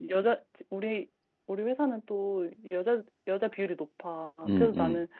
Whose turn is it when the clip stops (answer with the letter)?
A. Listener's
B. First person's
B